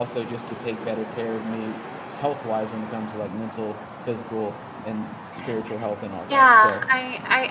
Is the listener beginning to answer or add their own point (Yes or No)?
Yes